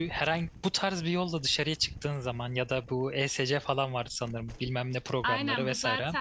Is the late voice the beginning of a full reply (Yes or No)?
Yes